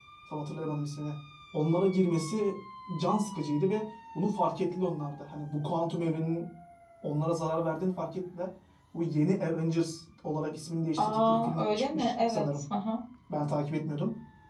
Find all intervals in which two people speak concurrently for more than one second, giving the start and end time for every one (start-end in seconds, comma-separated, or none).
11.0-12.5